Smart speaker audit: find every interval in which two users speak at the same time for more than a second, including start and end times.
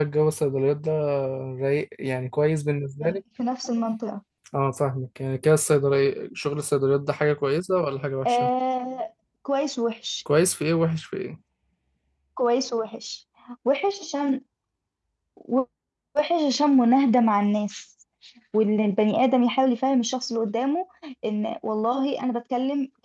none

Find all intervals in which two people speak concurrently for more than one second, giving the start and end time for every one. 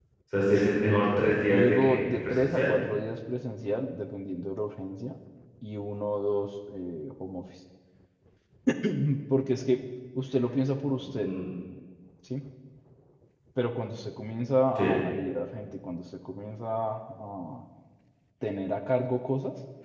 1.4-2.7

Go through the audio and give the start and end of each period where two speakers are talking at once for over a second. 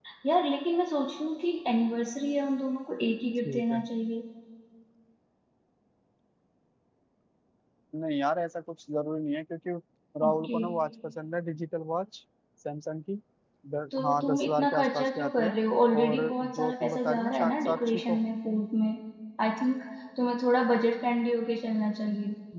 13.9-15.6, 16.0-18.2

